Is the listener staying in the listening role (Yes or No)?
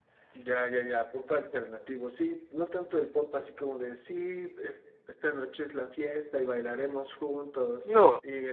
Yes